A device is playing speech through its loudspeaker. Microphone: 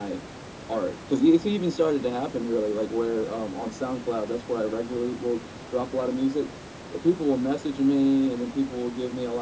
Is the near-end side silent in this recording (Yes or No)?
Yes